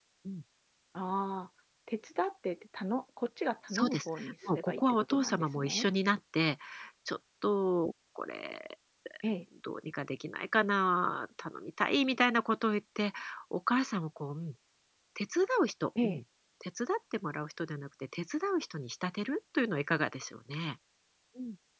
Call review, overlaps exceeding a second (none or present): present